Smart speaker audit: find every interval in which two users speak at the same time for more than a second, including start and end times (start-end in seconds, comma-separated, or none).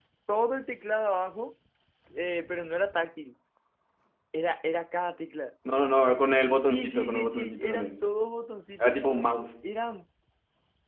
6.7-7.9